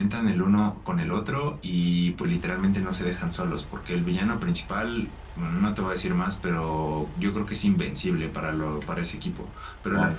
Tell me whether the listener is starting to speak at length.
No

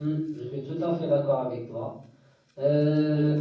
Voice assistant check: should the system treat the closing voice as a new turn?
No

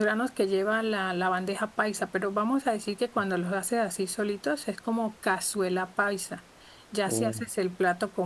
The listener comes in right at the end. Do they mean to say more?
No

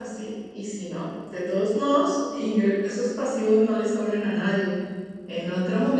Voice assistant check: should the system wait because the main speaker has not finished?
Yes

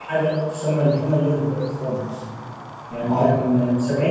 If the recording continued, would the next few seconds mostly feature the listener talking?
No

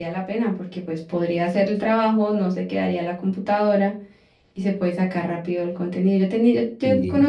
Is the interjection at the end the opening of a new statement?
No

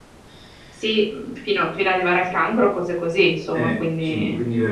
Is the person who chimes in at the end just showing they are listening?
No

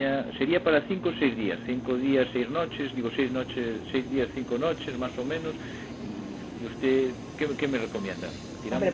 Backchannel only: Yes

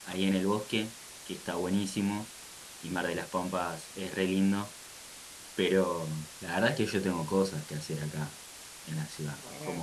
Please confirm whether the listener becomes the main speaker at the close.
No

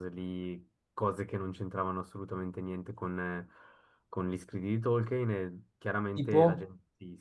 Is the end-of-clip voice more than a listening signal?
No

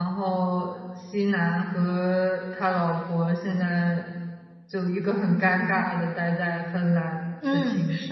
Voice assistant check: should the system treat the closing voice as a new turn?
Yes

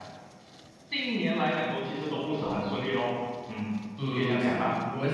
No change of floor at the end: No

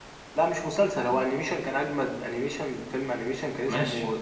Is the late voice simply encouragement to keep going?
Yes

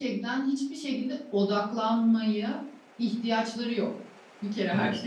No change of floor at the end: Yes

